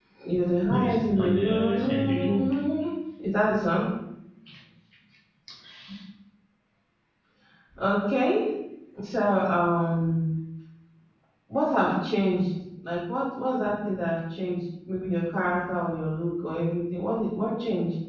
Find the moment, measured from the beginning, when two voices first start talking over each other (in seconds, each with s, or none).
0.7 s